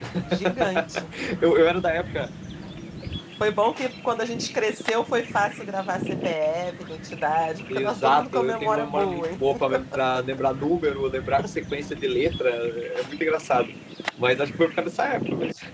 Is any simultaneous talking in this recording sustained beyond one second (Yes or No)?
Yes